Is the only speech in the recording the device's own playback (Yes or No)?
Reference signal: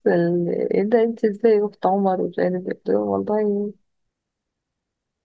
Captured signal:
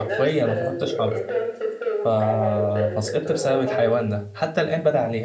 No